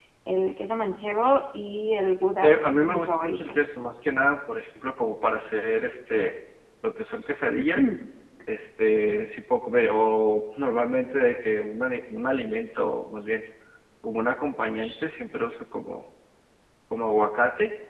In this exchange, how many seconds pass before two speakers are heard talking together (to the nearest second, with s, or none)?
2 s